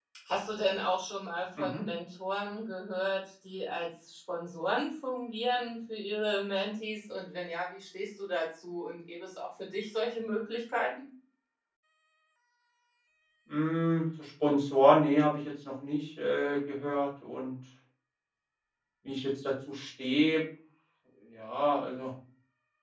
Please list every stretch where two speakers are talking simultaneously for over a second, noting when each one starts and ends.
none

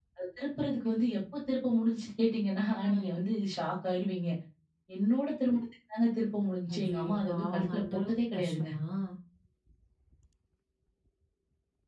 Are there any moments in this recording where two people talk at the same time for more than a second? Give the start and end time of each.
6.7-8.7

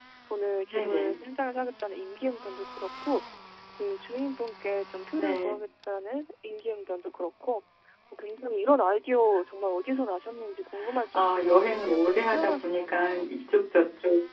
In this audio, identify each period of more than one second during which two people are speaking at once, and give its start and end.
11.1-13.2

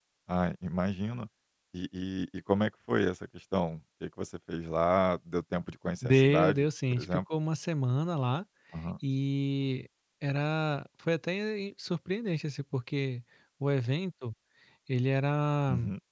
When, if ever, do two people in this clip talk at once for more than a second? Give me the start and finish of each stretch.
6.0-7.2

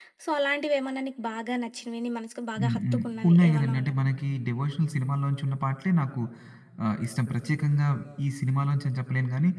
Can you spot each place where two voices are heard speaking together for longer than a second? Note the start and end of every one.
2.6-4.0

